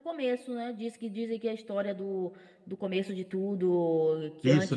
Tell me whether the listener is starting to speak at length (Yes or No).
Yes